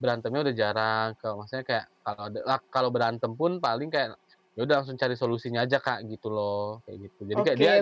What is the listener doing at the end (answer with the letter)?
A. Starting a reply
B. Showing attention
A